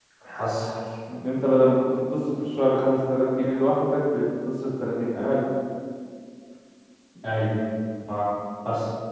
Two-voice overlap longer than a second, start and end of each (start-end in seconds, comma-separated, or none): none